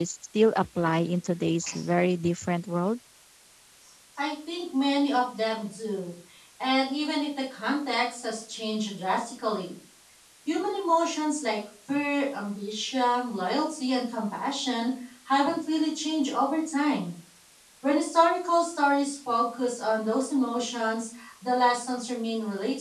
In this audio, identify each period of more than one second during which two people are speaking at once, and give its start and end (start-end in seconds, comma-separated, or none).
none